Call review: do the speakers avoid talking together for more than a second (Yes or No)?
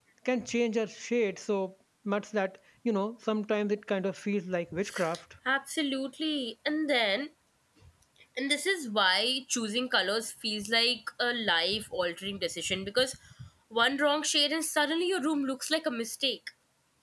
Yes